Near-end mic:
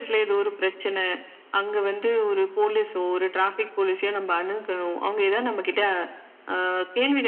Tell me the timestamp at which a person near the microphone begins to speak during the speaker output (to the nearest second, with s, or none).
none